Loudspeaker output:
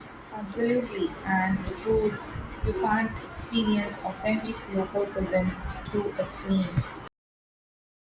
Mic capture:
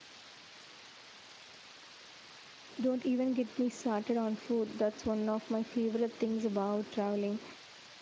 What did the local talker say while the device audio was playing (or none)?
don't even get me started on food. That's one of my favorite things about traveling.